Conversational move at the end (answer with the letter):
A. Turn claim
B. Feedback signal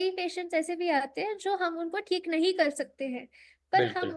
B